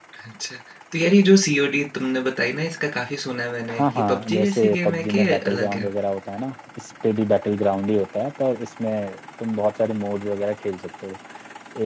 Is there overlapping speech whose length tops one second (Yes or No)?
Yes